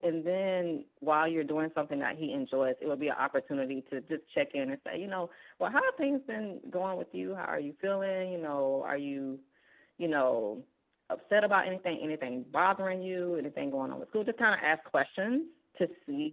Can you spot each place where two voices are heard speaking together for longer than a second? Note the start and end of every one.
none

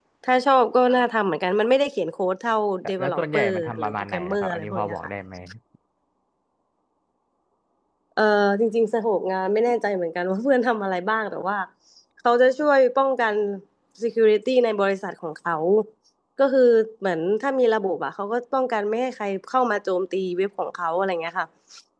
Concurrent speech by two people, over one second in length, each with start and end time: 3.0-5.0

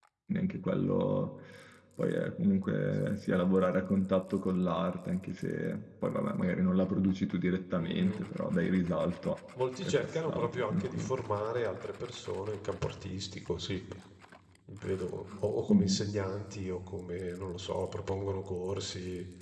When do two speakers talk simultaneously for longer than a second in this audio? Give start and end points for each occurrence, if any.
9.8-11.1

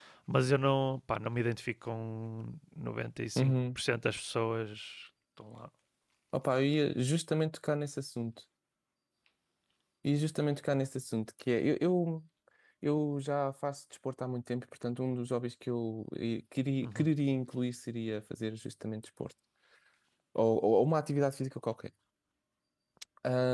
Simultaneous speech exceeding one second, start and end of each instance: none

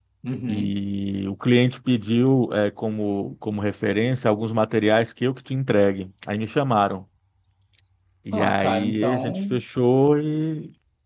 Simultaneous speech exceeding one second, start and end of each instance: 8.3-9.6

